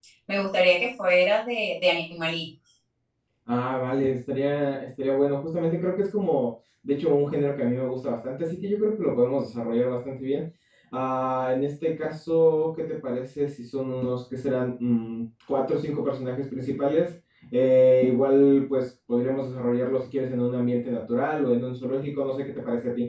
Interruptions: none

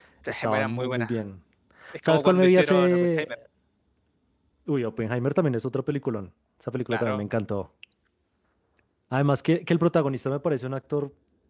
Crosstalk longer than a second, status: present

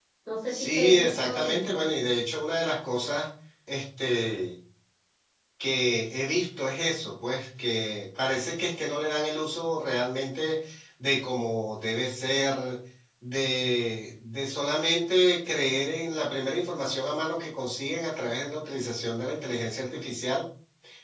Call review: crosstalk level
present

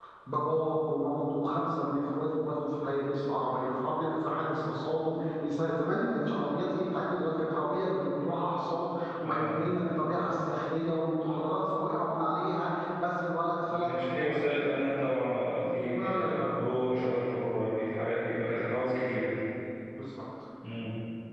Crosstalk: present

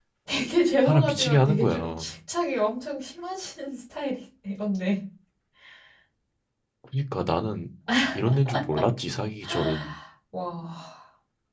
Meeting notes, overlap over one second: present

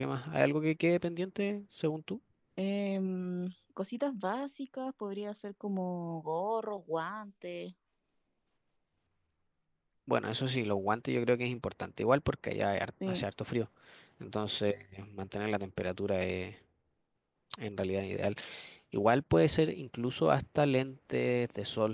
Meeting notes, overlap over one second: none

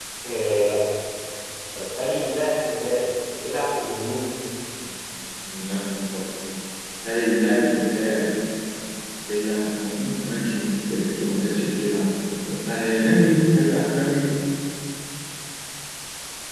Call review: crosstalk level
none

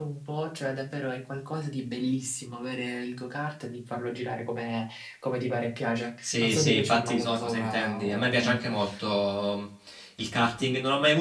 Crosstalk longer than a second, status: present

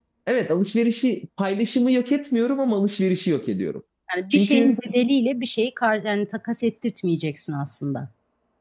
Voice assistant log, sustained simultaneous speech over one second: none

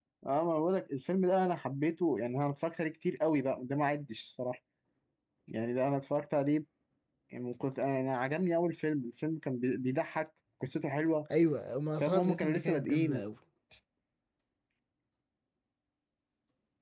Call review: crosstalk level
present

